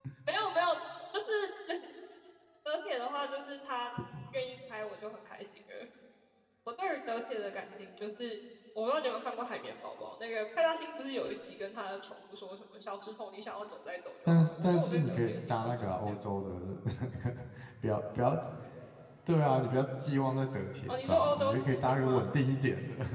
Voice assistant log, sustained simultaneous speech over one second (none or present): present